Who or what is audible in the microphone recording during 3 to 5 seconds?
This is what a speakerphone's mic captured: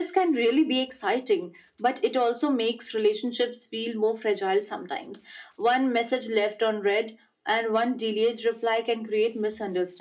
echo only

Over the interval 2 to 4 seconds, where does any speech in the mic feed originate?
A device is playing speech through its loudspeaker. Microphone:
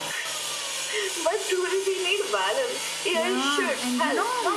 both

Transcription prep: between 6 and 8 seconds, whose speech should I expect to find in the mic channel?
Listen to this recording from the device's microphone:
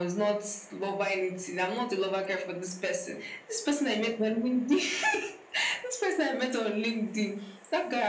echo only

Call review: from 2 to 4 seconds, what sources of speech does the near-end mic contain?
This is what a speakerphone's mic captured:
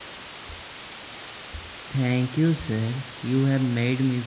user only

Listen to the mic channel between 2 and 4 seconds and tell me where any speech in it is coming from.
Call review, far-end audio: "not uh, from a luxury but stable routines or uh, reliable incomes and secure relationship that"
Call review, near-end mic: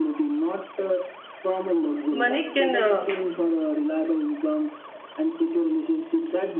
both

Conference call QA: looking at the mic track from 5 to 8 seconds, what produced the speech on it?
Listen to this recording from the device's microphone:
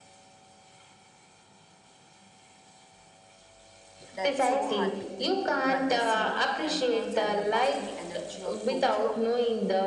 both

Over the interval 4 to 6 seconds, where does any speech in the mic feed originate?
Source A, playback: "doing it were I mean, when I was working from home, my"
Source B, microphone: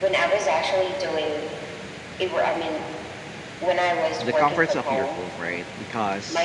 both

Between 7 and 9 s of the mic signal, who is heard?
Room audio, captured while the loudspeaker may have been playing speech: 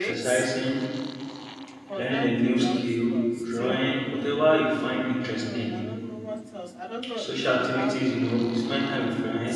both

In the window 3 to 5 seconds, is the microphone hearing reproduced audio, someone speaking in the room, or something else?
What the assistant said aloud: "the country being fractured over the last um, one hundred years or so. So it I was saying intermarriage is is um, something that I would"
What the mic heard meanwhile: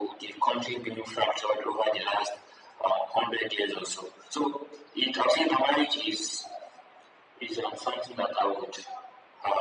echo only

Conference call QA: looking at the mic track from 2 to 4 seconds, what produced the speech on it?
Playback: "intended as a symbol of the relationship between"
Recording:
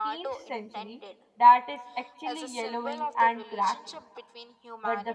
both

